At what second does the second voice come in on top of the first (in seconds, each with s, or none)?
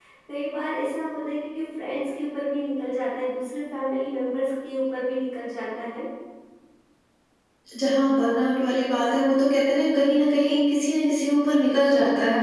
none